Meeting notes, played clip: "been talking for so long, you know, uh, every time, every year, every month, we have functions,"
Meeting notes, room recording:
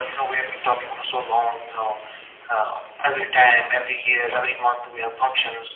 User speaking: No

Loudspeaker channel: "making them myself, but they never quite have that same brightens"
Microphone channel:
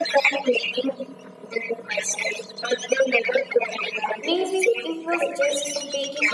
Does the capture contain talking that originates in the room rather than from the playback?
Yes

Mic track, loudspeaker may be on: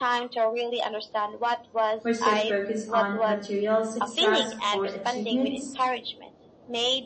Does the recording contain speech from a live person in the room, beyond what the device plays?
Yes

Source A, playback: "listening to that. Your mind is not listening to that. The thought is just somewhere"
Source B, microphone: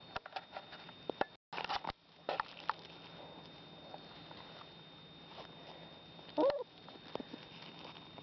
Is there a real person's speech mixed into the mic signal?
No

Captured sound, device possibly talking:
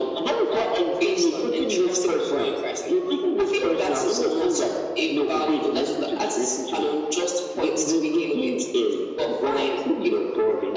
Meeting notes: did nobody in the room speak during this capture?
Yes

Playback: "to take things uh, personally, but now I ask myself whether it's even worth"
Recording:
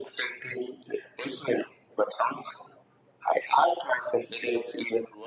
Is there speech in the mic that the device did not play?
No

